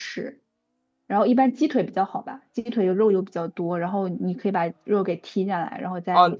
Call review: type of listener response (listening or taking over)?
taking over